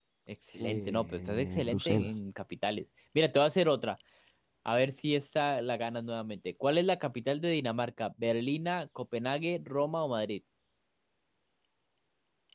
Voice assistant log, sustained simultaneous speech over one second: present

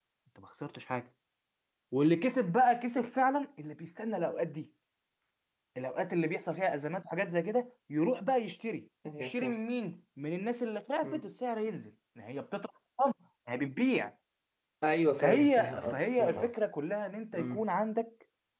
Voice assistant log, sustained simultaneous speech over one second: present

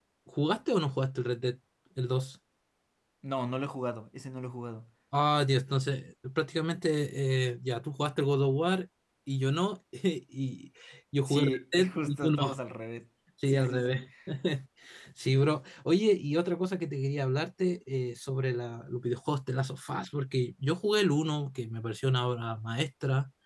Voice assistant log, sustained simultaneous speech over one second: present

